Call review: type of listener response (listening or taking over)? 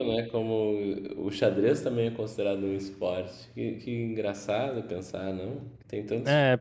taking over